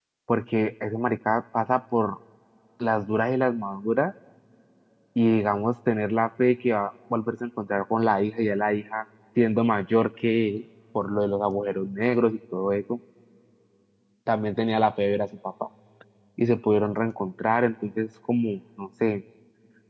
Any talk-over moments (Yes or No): No